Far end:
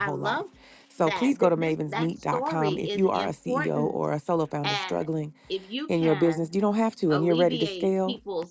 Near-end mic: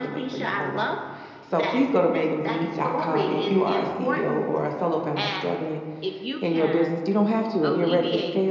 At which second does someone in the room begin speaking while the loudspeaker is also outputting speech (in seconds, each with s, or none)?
none